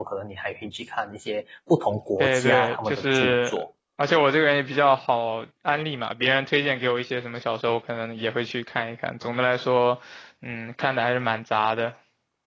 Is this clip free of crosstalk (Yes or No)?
No